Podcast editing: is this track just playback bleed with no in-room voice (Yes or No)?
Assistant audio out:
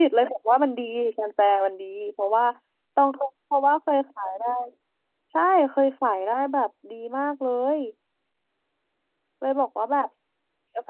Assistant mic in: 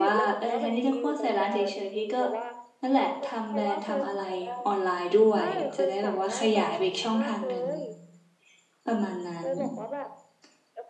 No